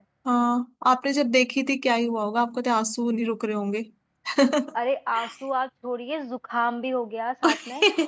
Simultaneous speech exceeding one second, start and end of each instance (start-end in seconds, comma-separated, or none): none